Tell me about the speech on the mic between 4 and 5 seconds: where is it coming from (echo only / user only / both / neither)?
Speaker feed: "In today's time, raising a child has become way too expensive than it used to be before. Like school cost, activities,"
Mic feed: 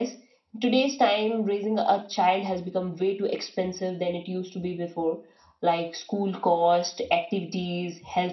echo only